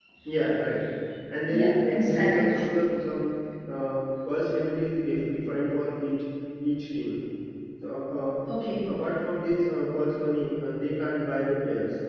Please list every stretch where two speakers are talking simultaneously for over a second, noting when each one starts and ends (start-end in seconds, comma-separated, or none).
1.5-2.8